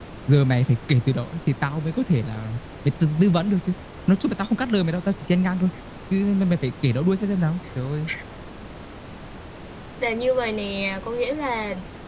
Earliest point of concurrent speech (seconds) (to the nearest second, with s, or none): none